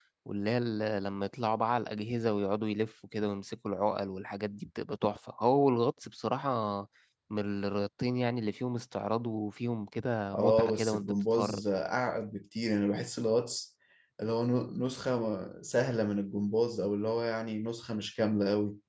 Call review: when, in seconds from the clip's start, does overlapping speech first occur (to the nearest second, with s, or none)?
10 s